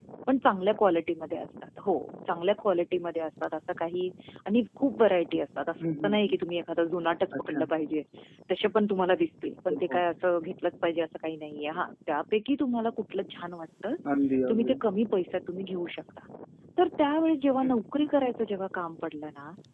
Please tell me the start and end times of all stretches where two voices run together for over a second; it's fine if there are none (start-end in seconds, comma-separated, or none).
none